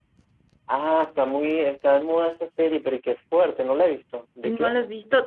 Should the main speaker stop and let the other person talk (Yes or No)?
Yes